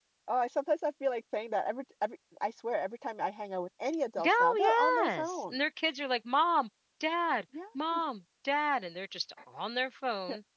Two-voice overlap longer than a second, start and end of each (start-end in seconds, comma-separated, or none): 4.2-5.6